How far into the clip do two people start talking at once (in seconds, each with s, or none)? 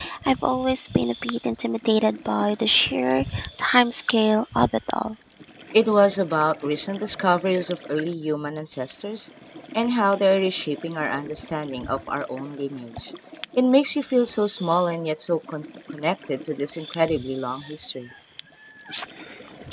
none